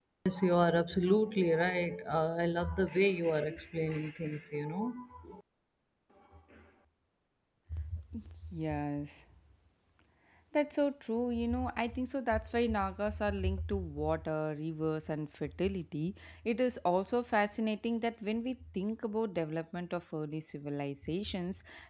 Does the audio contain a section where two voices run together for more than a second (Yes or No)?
No